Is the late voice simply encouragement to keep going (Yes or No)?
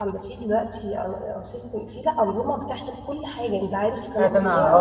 No